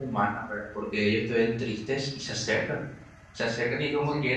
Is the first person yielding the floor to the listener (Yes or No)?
No